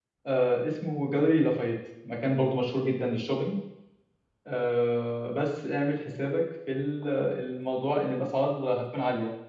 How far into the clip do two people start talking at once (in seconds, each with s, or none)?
none